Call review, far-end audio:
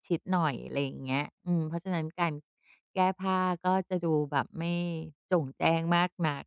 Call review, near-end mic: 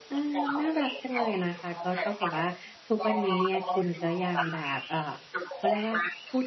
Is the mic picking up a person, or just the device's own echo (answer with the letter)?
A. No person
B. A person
B